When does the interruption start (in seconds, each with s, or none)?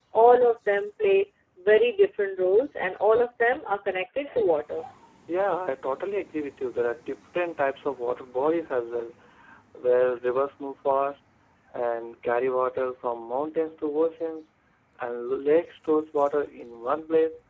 none